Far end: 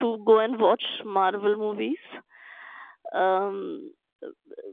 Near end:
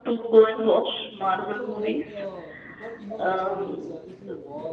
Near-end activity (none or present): present